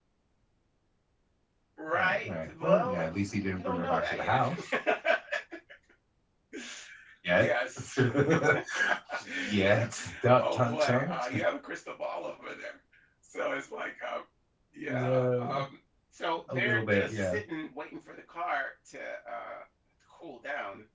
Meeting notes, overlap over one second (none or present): present